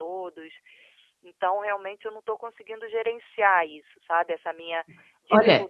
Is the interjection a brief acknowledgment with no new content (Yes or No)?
No